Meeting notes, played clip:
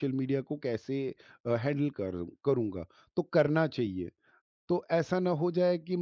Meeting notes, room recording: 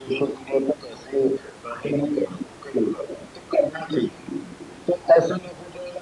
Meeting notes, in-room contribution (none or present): none